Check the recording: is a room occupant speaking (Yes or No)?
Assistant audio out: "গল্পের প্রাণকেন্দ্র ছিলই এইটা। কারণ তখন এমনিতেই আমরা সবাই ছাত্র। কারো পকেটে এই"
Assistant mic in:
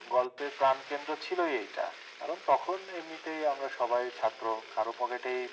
No